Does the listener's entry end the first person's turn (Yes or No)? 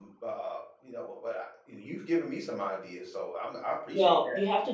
Yes